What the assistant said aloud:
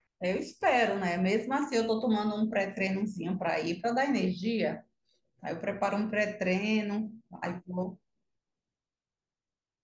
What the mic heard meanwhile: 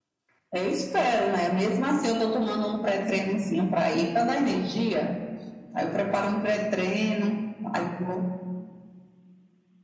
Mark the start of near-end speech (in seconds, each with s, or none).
none